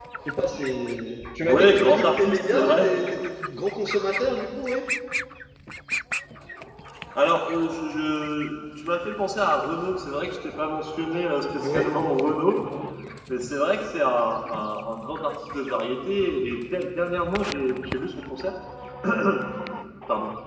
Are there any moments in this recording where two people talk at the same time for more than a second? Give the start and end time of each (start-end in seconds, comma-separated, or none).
1.4-2.9